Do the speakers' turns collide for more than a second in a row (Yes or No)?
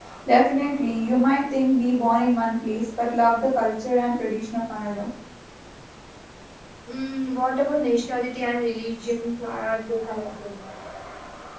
No